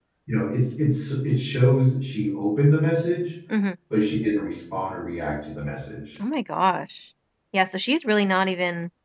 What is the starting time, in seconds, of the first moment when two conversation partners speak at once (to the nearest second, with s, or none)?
none